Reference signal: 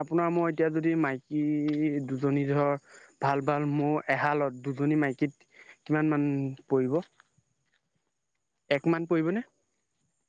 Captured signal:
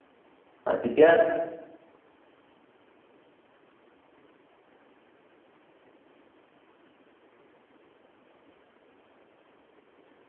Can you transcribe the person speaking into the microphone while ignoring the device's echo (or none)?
অ তেতিয়া